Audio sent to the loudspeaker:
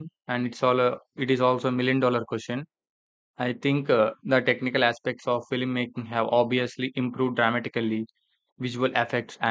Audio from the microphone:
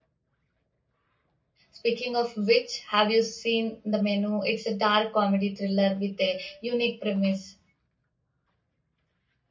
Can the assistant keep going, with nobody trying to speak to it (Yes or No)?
No